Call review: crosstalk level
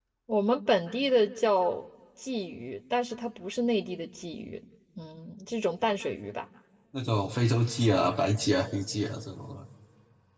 none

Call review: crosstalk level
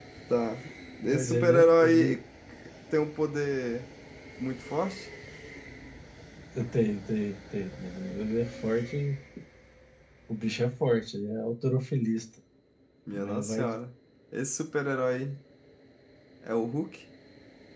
present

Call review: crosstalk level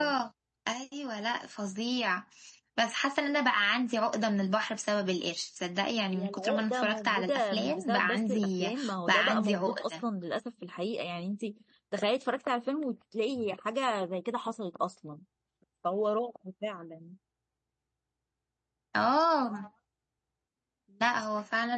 present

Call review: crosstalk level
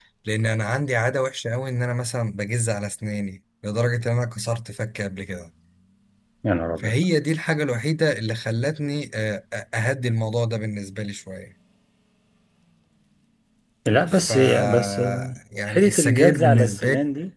present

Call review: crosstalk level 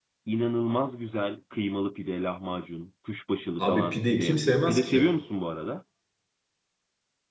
present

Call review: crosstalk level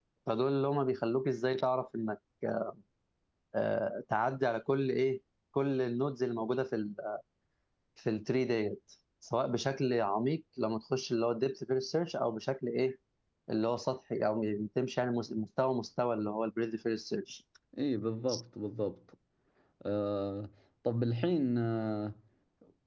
none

